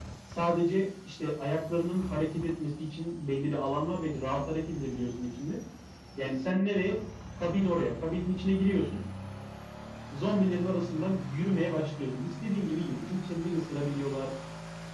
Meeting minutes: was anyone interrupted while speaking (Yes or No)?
No